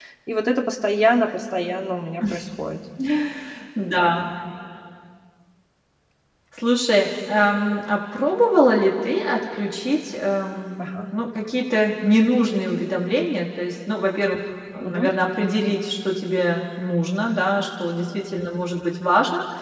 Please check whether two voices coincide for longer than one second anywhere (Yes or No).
No